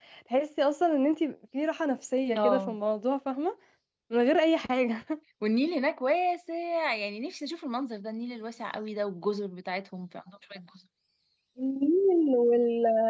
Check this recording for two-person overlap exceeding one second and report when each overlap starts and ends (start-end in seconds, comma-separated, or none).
none